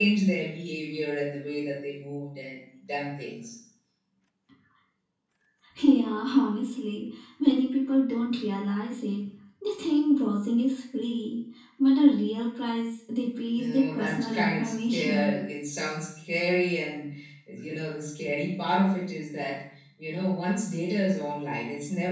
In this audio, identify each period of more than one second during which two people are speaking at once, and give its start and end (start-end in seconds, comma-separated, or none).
13.6-15.4